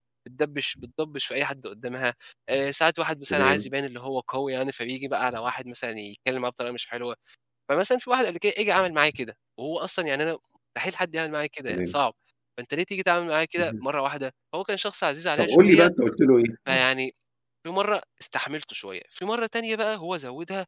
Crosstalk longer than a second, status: none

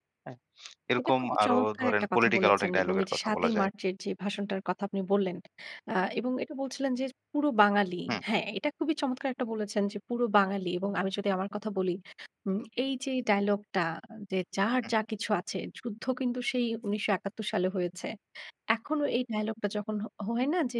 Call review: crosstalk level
present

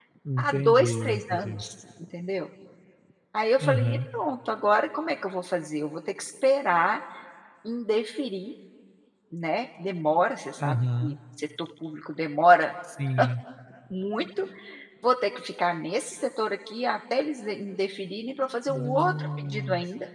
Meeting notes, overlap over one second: present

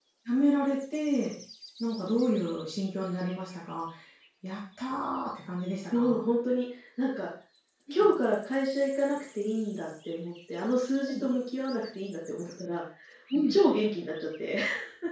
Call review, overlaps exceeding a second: none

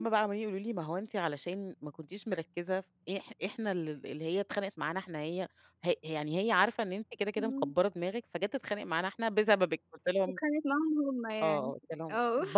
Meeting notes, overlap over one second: none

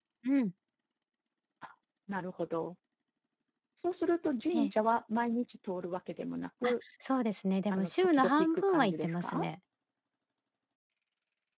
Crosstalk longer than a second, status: present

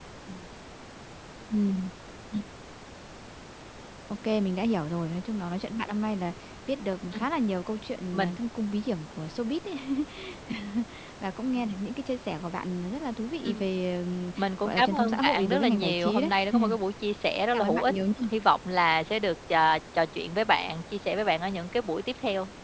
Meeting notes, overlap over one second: present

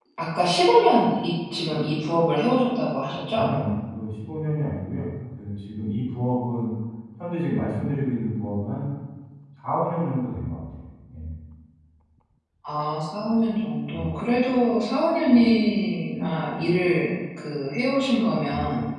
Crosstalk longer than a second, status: none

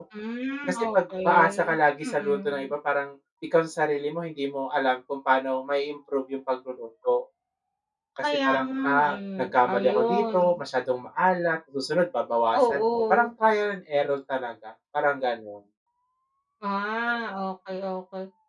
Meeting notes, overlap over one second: present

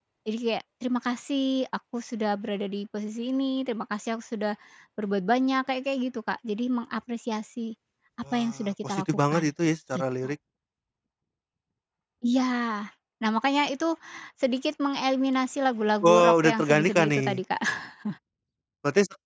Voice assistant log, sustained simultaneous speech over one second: present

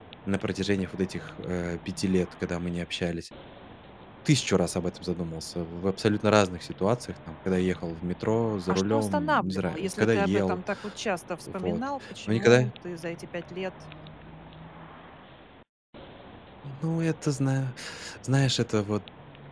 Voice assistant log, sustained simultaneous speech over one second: present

